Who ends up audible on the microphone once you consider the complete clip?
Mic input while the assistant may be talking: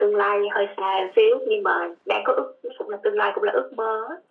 echo only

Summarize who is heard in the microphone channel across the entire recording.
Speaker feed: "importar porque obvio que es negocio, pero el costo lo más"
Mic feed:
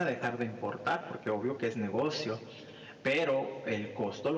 echo only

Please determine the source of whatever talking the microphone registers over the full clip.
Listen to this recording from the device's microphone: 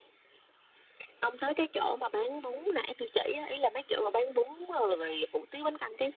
echo only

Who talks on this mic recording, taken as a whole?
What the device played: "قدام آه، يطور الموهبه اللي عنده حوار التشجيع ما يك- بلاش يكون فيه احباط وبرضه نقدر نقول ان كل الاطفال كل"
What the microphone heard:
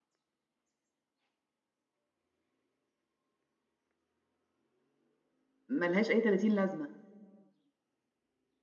user only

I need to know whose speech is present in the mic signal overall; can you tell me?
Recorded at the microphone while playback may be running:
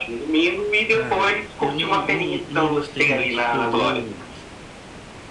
both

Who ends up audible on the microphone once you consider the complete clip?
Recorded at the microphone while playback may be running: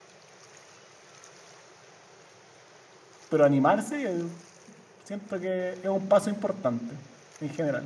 user only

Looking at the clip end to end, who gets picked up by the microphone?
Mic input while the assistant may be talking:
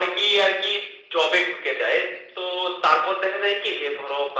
echo only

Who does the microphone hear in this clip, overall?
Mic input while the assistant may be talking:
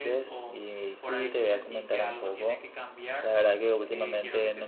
both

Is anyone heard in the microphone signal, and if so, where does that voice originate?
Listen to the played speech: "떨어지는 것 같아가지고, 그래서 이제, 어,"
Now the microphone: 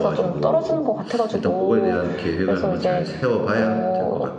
both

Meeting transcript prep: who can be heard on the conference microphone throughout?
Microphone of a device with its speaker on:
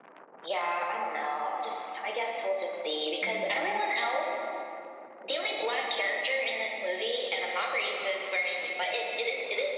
both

